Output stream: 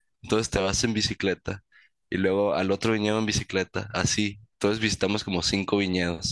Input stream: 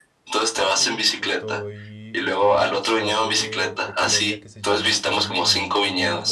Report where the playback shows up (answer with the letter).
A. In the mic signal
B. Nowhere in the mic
A